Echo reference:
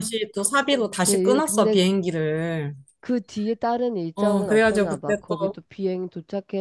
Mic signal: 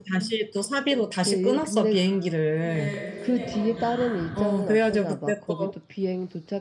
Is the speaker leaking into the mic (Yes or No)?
Yes